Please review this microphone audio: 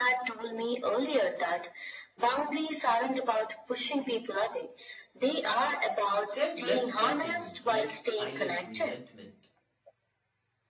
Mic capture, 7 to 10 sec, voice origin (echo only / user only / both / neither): both